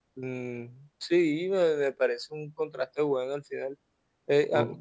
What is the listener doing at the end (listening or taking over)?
listening